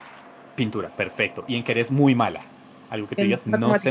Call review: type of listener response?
listening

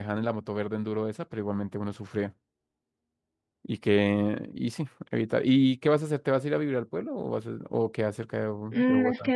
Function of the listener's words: taking over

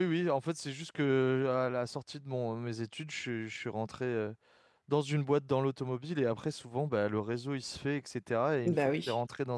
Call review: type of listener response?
listening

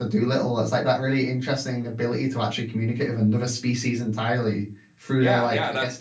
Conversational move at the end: taking over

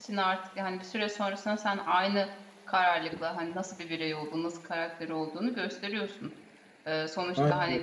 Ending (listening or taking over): listening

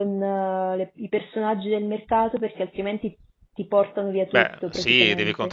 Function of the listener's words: taking over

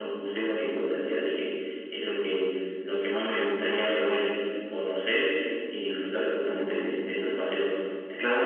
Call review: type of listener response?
listening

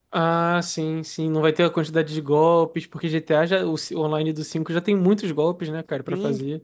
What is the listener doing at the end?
taking over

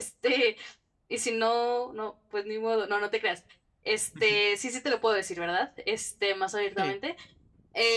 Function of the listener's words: listening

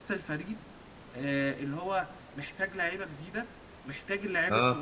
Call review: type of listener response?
listening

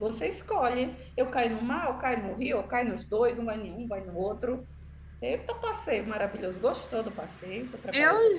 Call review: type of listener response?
taking over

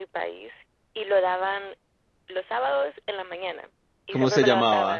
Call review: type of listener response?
taking over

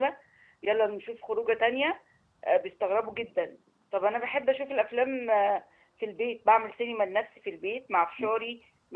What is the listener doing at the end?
listening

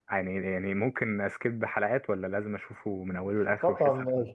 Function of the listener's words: taking over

